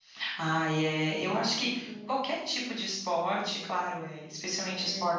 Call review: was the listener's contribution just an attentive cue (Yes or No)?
Yes